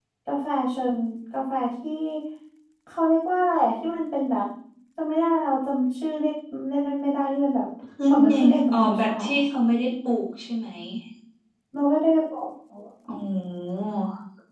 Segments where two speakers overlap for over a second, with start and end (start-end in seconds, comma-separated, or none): 8.1-9.4